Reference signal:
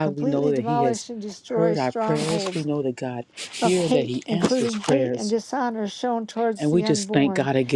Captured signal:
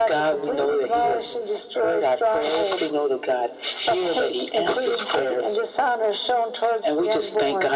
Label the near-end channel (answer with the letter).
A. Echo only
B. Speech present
A